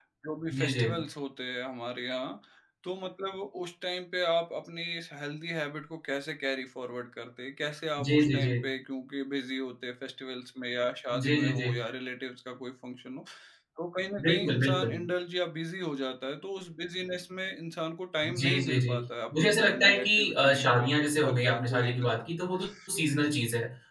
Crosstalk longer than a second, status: present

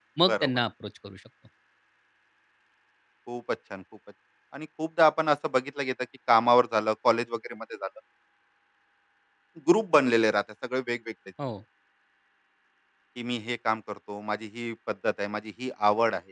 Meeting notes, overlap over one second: none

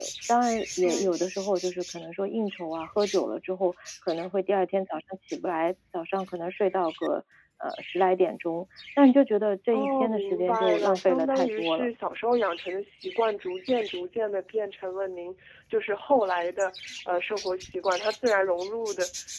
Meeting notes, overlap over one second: present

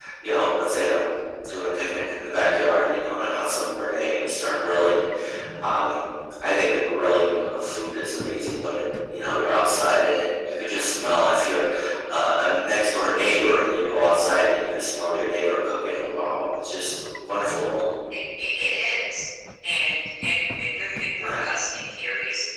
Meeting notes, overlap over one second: none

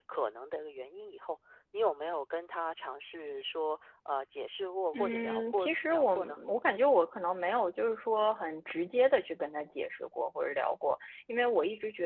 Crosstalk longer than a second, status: present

